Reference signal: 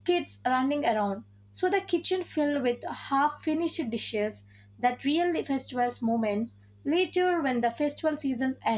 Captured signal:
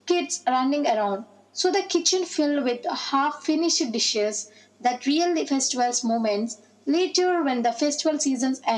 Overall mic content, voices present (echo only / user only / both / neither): echo only